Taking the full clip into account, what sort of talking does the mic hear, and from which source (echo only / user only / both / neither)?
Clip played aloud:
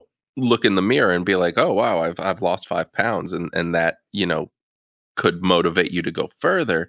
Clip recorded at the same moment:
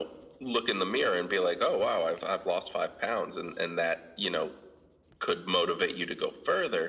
echo only